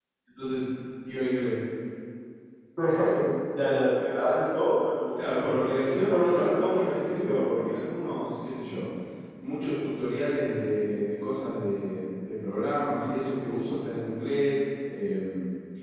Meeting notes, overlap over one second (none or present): present